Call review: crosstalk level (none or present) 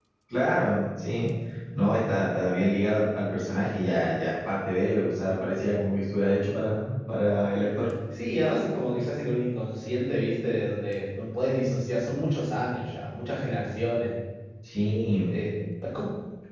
none